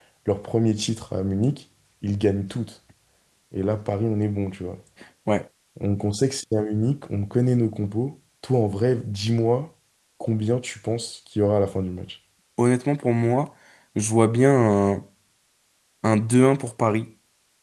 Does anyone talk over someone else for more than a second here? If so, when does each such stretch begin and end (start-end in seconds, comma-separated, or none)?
none